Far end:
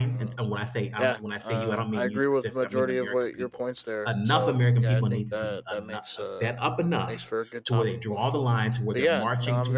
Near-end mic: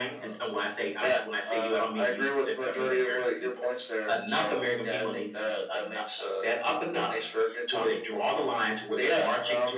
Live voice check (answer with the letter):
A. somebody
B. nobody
B